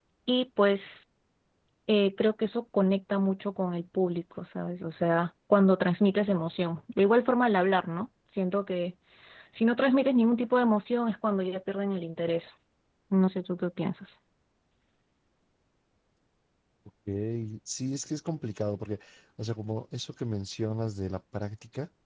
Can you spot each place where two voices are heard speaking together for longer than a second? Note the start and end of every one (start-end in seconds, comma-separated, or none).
none